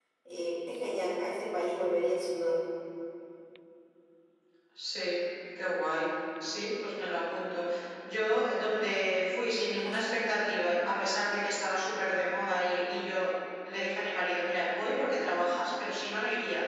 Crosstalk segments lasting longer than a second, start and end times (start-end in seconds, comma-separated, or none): none